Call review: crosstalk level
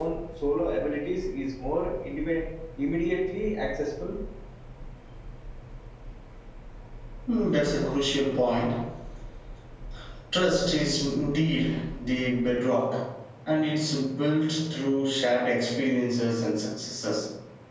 none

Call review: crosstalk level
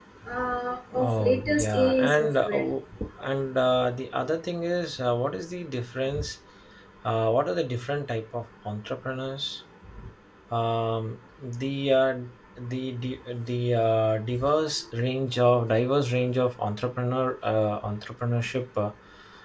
present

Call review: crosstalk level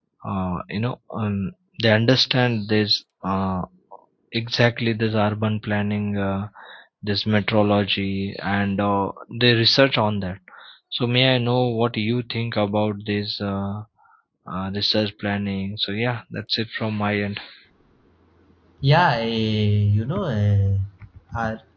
none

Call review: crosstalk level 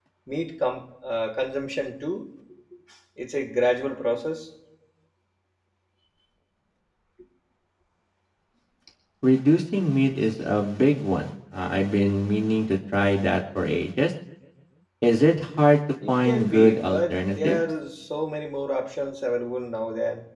present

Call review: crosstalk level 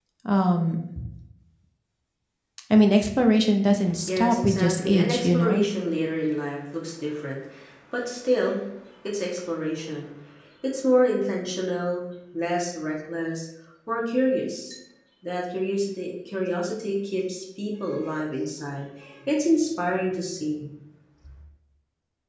present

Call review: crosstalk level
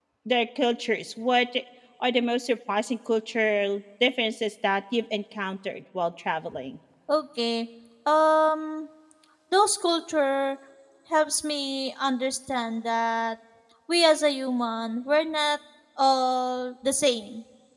none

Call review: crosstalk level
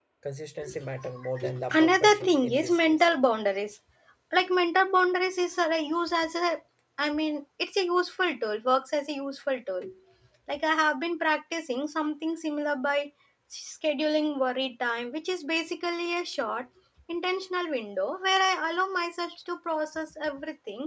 present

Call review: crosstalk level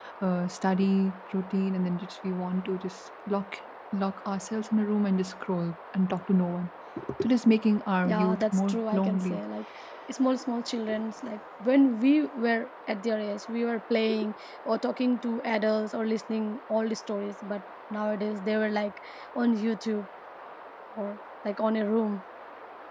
present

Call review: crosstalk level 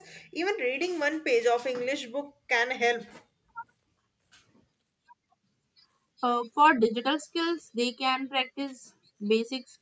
none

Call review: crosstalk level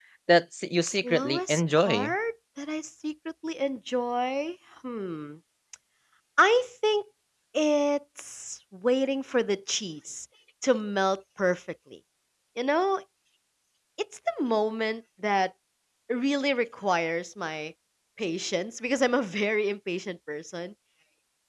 present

